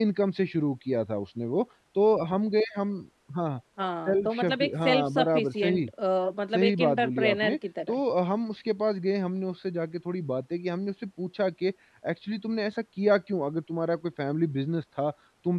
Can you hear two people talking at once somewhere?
Yes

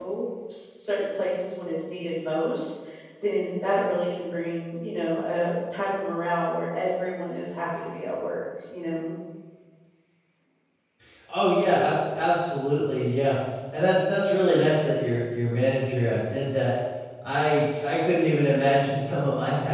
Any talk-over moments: No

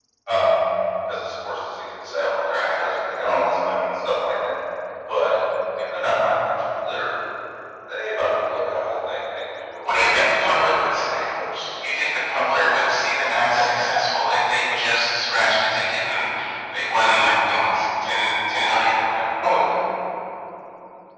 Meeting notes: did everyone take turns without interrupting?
No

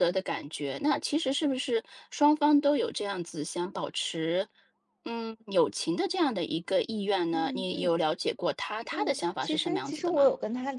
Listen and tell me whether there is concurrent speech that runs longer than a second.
Yes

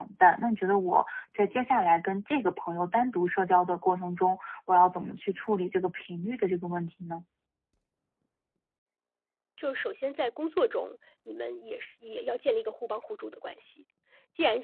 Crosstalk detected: No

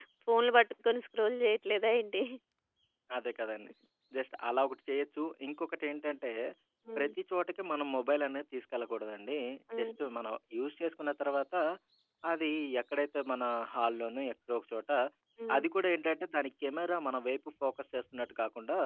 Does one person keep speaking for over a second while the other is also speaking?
No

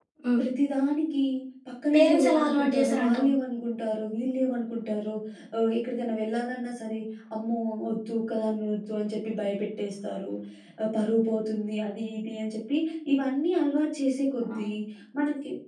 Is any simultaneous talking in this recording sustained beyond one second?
Yes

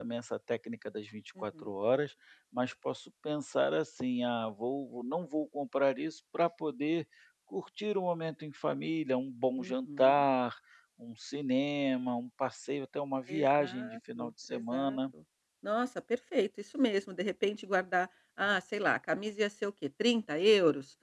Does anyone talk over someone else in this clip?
Yes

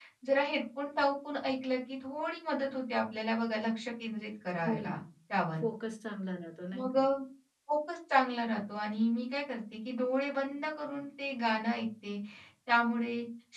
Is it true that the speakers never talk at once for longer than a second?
Yes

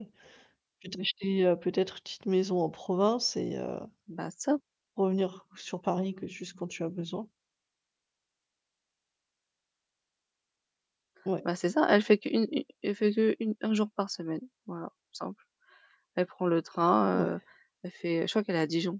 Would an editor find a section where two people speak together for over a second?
No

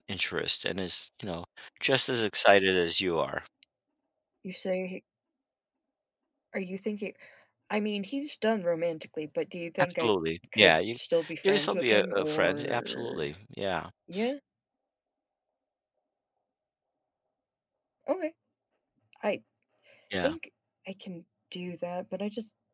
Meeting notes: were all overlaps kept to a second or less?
No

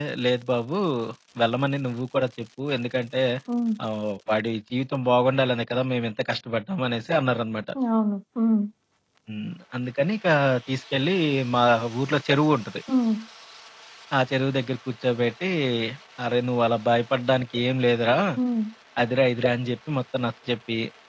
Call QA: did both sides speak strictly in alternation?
Yes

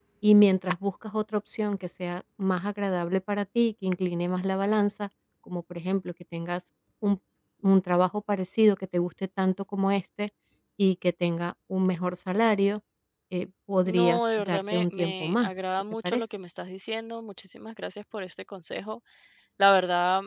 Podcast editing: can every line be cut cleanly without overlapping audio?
No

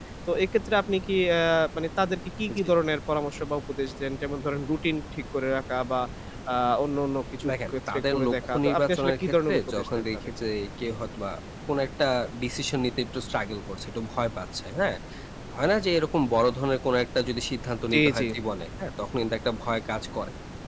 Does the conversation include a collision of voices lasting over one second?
Yes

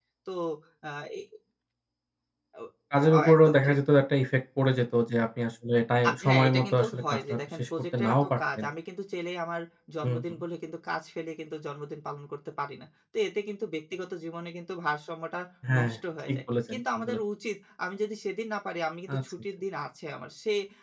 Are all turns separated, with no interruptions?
No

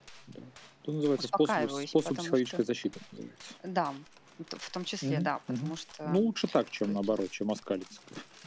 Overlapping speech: Yes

